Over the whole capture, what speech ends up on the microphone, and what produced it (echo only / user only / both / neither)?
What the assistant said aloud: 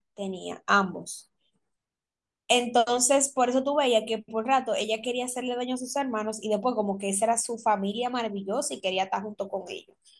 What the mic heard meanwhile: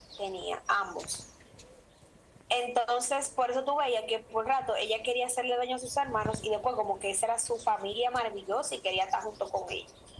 echo only